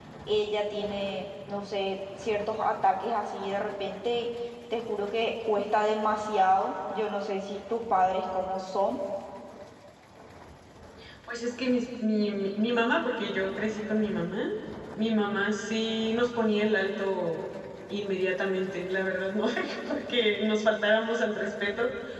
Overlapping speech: No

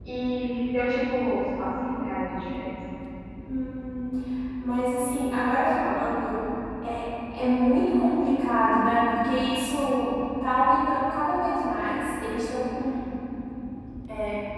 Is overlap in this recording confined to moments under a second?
Yes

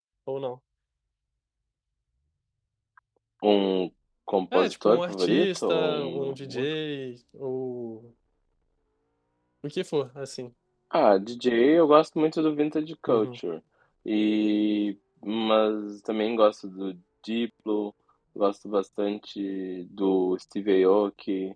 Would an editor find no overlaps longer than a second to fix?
No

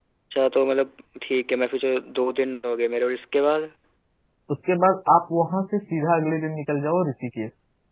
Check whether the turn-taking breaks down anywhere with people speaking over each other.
No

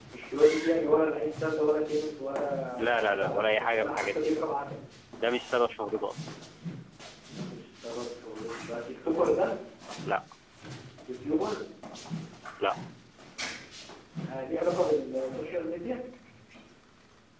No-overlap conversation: No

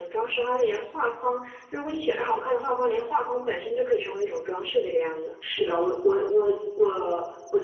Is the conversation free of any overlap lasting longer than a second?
Yes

